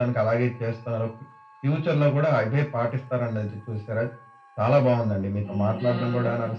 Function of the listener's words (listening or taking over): listening